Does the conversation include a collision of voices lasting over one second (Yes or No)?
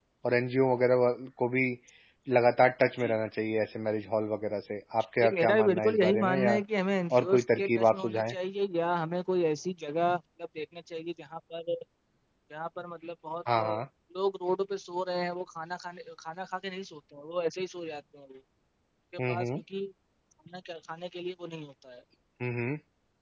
Yes